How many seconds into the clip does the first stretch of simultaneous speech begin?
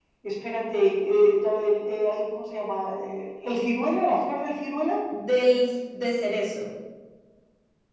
none

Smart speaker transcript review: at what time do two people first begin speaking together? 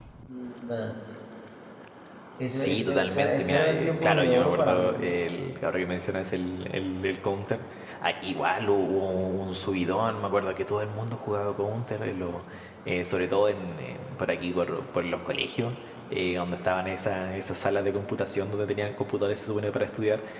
2.6 s

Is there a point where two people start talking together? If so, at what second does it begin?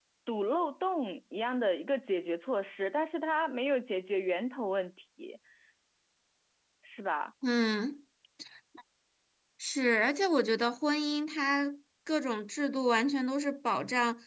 none

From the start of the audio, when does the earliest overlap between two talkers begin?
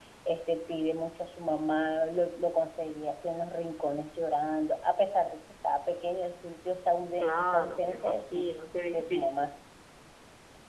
7.2 s

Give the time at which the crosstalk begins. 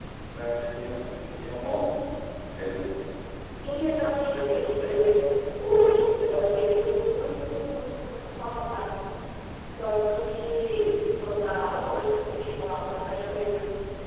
none

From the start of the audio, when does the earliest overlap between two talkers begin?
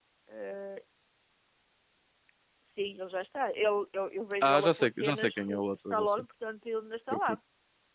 4.4 s

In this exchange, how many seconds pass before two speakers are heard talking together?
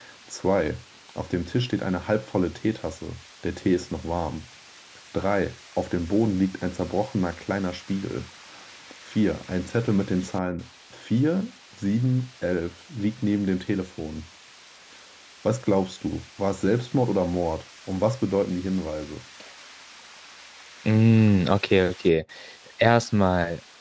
none

